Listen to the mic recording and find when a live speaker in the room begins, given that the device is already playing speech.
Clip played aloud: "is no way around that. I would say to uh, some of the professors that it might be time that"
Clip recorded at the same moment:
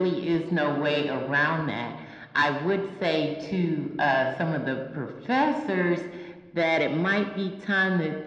none

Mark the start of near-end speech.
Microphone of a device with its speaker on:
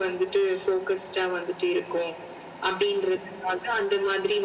none

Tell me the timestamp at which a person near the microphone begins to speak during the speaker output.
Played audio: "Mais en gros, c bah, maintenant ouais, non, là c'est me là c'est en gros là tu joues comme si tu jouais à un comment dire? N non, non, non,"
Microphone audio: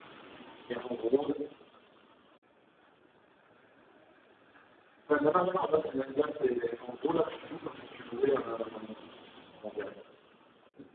none

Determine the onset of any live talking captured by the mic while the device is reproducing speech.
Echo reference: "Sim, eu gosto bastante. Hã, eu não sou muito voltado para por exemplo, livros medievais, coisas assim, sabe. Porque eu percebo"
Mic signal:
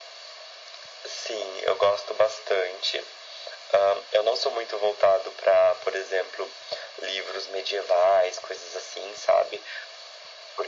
none

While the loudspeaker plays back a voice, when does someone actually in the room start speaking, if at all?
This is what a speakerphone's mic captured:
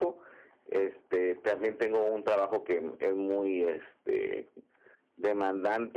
none

